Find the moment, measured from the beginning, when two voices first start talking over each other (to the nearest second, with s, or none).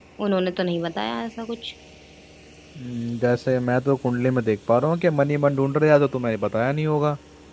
none